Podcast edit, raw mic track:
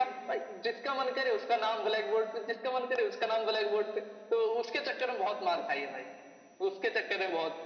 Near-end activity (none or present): none